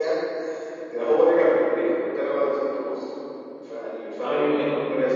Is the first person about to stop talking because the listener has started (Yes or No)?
No